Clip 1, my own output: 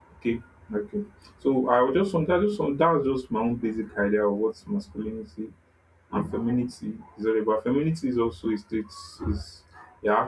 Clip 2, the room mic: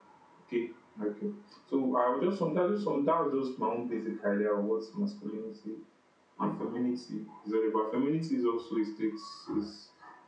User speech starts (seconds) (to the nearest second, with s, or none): none